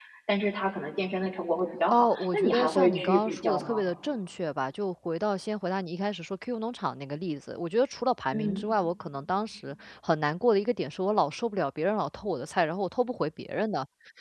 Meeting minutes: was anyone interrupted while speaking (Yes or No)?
Yes